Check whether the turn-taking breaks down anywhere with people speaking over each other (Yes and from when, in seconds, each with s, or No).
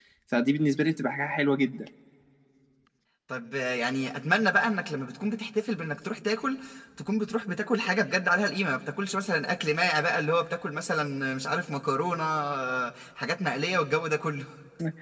No